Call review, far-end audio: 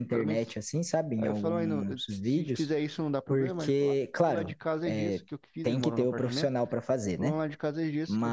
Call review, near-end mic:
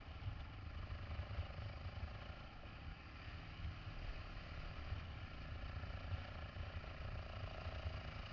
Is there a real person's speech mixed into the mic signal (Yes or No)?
No